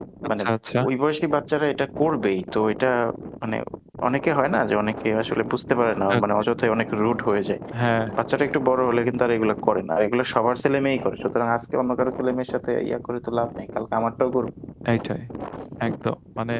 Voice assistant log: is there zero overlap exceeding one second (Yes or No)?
Yes